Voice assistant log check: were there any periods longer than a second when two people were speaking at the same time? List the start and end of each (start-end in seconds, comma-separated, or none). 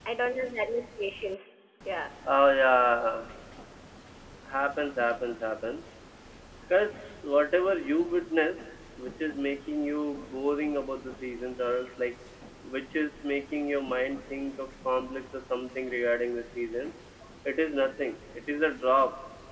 none